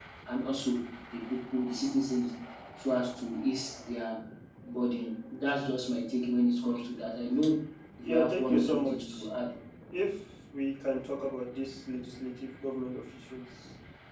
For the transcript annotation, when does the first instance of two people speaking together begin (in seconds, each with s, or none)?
8.1 s